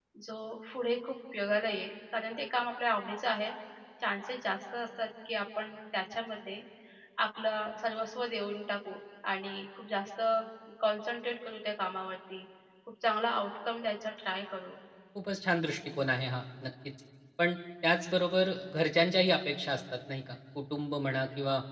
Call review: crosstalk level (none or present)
none